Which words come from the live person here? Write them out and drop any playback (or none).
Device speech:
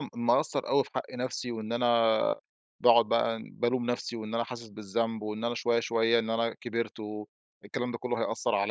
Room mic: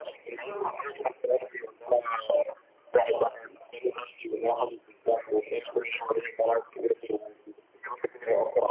طُرُق